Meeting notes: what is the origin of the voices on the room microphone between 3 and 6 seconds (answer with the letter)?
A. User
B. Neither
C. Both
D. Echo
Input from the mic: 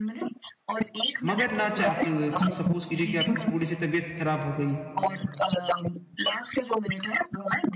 C